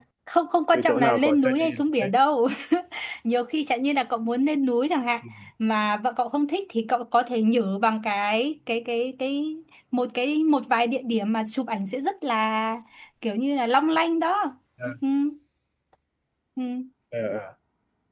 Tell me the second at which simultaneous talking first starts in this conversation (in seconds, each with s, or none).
0.7 s